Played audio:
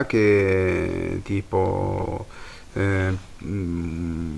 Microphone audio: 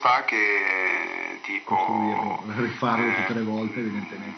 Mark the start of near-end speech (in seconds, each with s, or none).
1.6 s